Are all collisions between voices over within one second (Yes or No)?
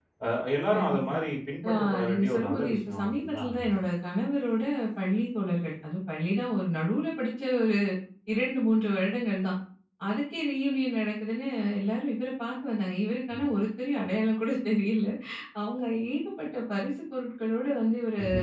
No